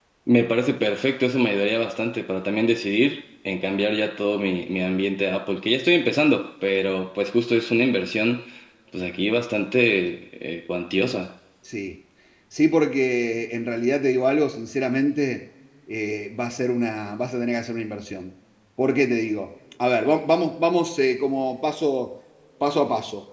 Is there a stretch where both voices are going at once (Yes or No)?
No